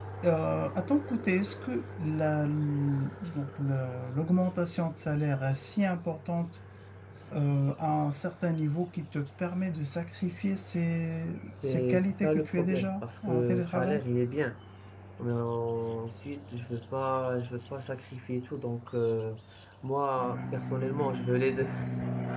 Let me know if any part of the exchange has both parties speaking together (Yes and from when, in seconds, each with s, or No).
Yes, from 11.6 s